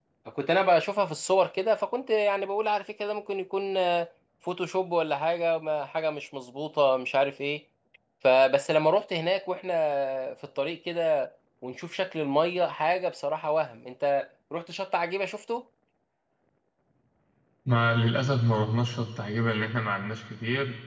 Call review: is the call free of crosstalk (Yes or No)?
Yes